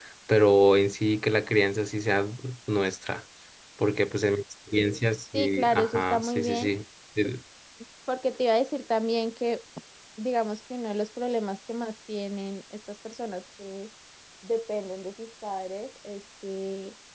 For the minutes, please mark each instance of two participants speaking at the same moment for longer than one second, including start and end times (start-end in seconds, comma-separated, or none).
5.3-6.7